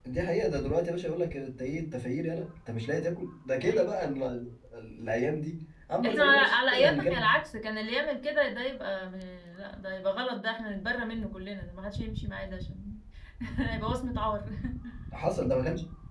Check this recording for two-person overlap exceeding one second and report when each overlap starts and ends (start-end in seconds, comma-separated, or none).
6.0-7.3